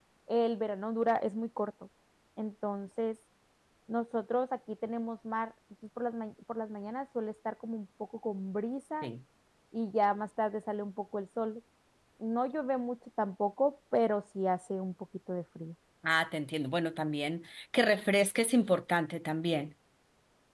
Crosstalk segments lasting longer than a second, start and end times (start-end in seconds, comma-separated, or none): none